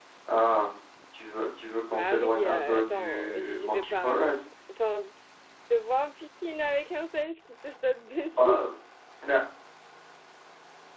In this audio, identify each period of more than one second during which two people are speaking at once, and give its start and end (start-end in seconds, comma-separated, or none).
1.9-4.2